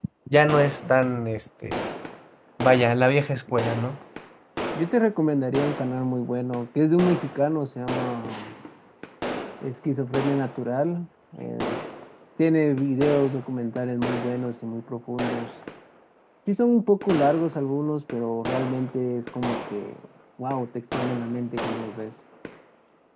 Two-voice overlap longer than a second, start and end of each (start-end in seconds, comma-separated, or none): none